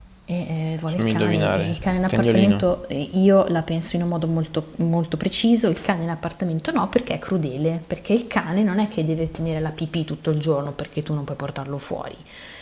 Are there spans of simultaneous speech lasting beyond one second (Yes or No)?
Yes